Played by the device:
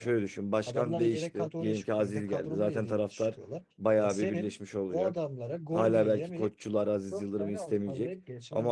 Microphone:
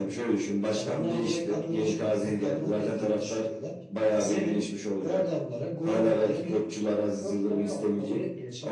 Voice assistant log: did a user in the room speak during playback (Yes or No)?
No